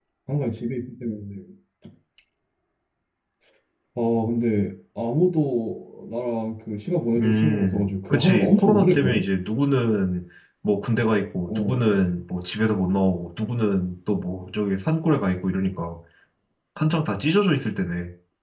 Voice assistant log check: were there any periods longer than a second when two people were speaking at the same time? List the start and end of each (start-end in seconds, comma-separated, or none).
7.2-9.2